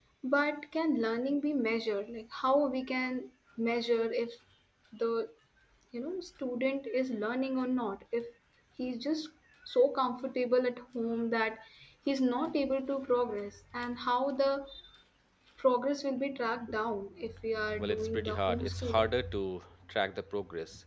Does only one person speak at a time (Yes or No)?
No